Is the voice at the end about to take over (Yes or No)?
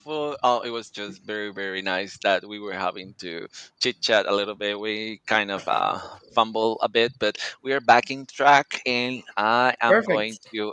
No